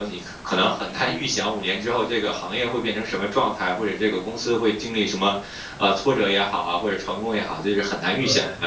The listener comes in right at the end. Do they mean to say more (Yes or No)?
No